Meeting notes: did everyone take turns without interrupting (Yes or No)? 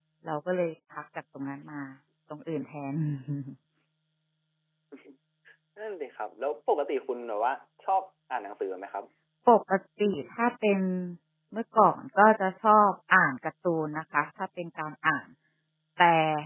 Yes